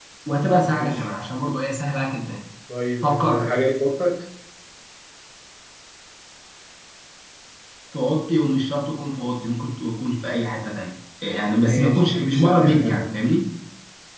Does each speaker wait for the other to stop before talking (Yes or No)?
No